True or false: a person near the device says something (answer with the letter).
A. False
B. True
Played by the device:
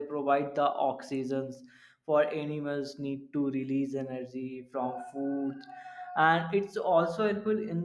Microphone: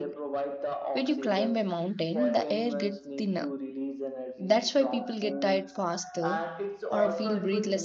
B